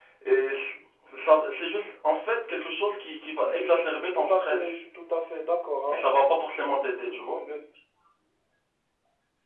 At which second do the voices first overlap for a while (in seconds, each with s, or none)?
3.4 s